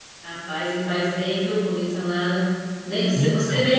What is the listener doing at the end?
listening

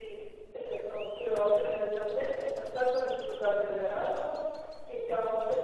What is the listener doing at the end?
listening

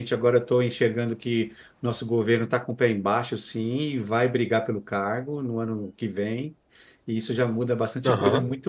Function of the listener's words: listening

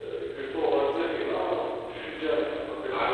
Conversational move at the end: taking over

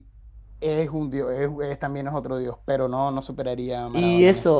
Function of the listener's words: taking over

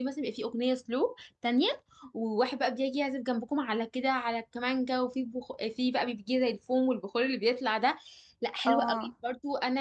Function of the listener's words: listening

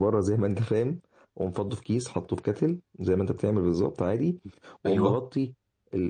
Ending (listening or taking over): listening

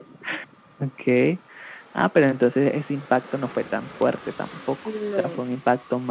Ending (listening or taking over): listening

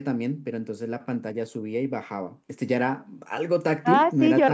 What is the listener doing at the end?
taking over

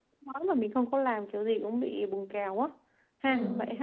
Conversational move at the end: taking over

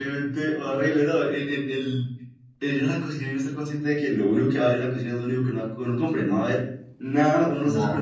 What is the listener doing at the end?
taking over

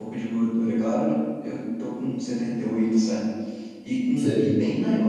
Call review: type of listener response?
listening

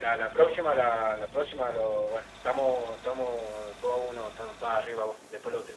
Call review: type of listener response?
taking over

